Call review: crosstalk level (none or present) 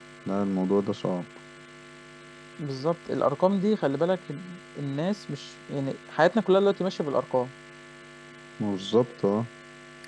none